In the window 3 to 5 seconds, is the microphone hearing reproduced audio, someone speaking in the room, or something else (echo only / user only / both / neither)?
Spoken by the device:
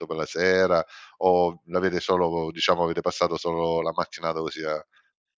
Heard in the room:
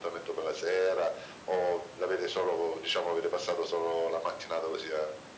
echo only